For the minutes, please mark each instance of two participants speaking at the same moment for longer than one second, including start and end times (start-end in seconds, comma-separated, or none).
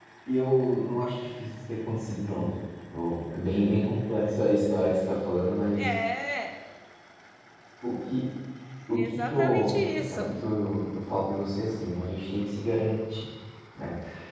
8.9-10.3